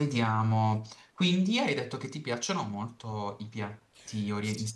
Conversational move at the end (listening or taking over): taking over